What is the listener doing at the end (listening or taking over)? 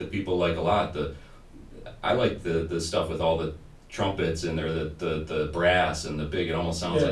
listening